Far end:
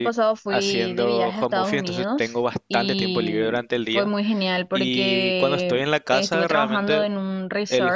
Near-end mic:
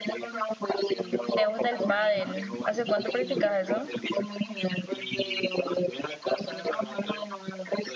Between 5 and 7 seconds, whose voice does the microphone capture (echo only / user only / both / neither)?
echo only